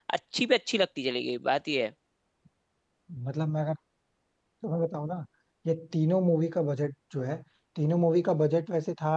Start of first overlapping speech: none

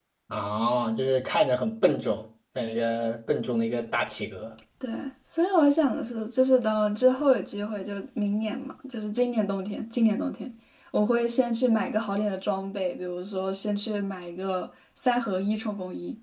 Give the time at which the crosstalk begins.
none

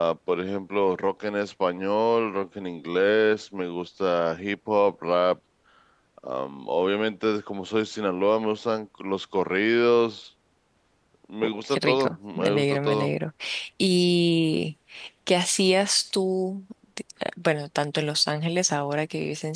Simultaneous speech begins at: 11.4 s

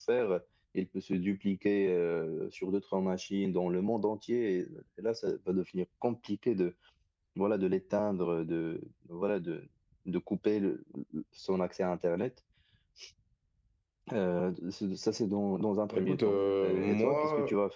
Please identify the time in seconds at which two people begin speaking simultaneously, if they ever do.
15.9 s

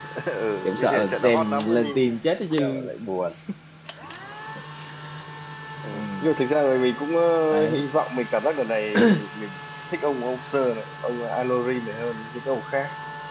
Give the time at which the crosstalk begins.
0.6 s

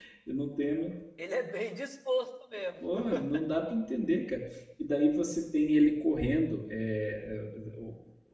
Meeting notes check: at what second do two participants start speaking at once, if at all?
none

